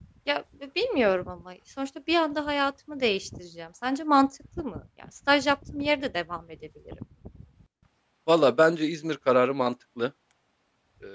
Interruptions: none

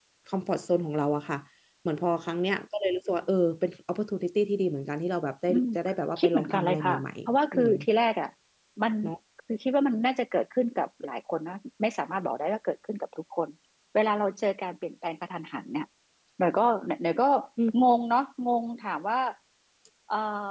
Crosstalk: present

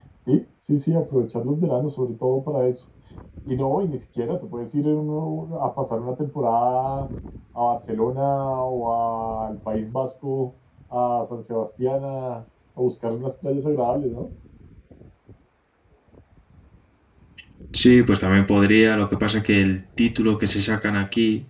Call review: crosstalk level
none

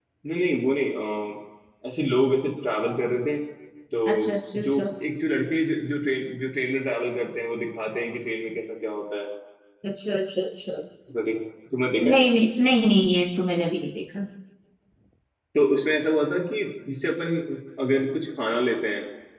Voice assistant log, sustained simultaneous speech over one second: none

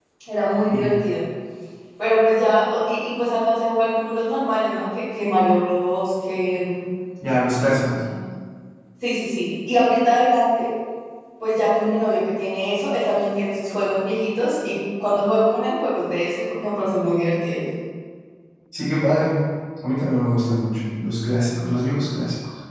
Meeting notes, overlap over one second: none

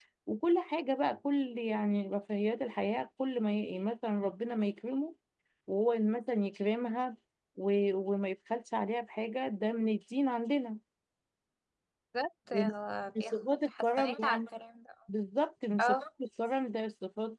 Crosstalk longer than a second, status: present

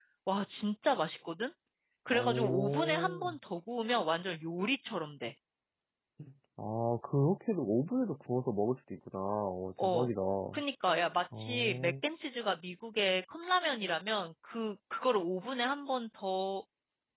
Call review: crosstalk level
present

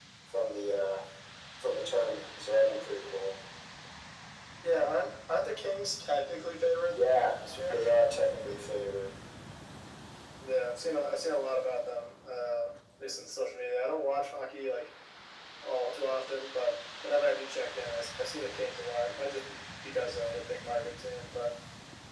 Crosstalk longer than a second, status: none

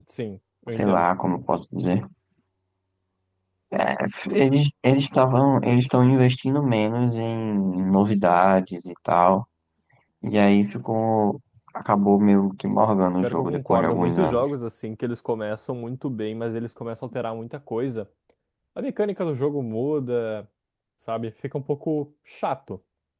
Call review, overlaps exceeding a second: present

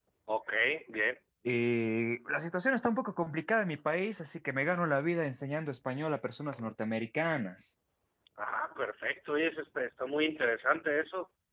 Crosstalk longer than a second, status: none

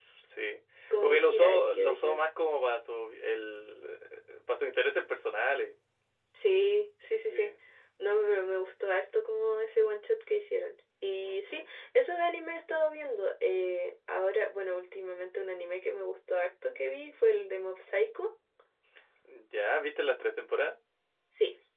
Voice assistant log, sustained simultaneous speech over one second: present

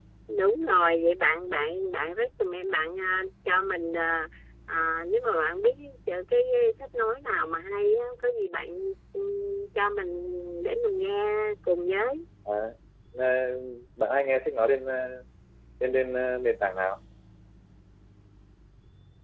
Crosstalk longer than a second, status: none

